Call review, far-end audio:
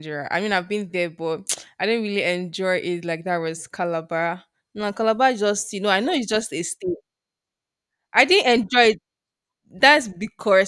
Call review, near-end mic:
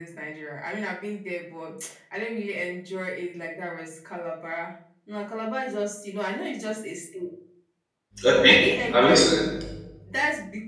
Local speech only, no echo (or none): okay, I'm listening.